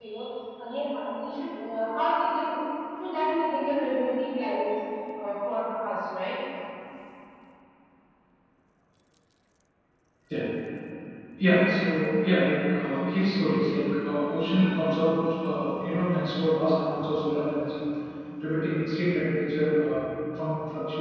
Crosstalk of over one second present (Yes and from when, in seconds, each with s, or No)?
No